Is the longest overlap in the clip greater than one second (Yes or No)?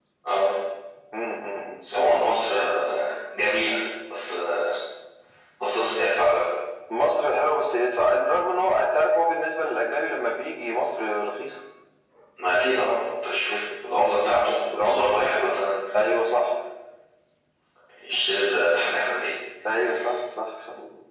Yes